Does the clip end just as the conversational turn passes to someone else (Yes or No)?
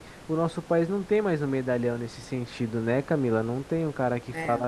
No